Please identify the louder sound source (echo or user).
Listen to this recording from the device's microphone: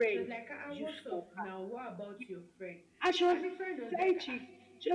user